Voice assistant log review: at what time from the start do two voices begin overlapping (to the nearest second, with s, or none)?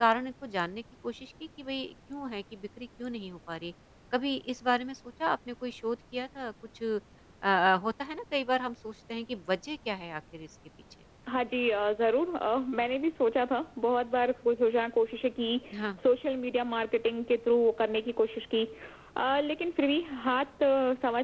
none